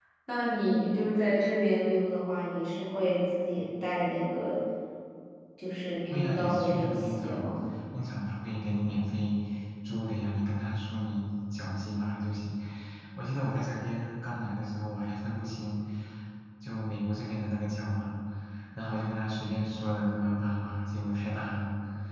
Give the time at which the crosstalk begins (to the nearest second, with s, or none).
6 s